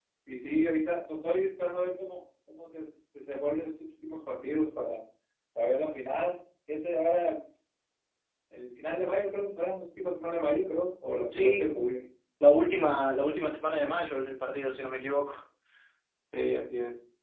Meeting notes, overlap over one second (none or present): none